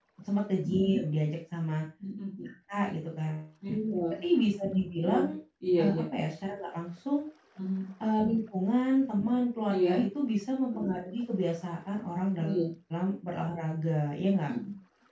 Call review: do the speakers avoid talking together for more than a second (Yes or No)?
Yes